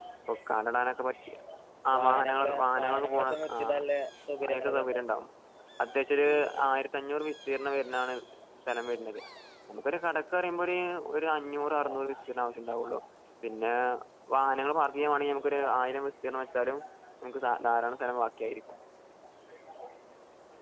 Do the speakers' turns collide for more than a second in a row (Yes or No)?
Yes